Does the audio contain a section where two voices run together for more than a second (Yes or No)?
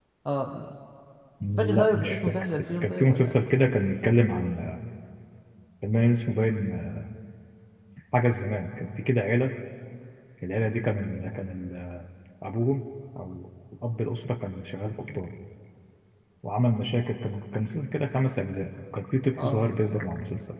Yes